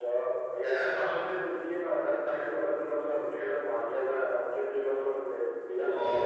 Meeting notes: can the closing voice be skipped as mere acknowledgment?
No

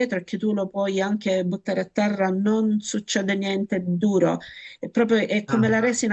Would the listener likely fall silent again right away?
Yes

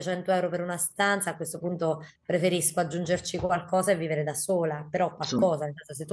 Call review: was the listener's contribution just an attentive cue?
Yes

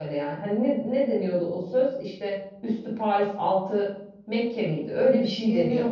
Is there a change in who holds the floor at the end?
Yes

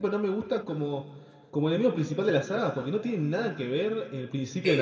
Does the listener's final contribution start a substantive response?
Yes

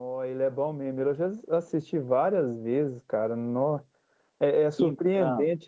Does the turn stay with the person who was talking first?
Yes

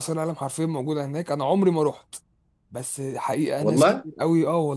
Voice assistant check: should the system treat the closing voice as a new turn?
No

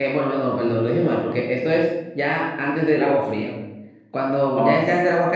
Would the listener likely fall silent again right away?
Yes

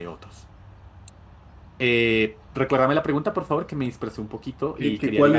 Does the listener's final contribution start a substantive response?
Yes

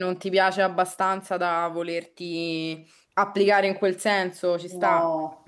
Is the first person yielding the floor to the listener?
Yes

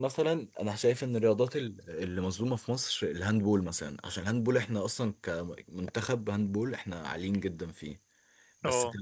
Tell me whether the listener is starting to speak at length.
No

